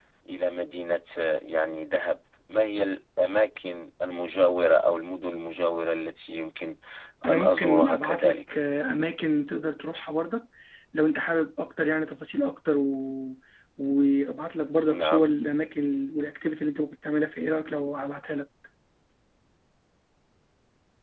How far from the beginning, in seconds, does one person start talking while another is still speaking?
7.3 s

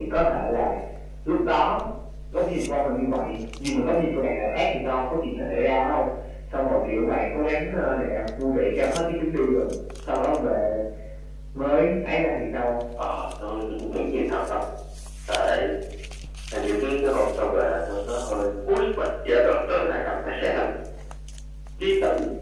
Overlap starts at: none

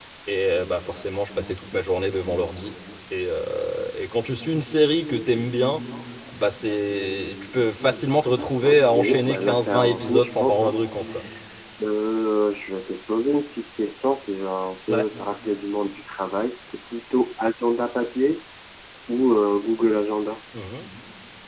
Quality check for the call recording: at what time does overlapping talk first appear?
8.6 s

